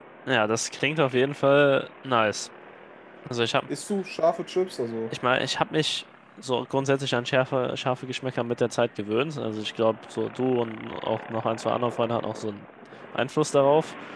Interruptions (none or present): none